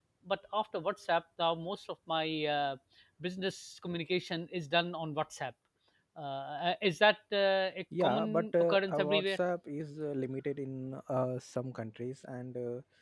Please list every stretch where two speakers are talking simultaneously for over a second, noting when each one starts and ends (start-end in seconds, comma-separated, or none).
8.0-9.4